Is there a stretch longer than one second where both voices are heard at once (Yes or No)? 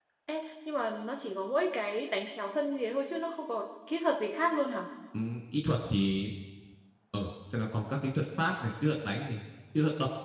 No